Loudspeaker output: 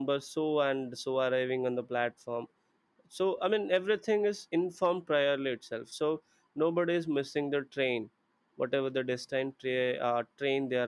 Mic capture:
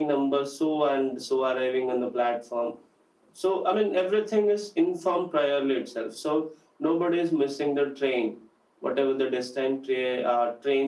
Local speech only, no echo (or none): none